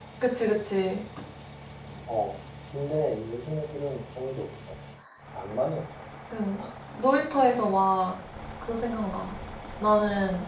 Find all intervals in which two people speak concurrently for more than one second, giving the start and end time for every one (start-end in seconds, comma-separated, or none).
none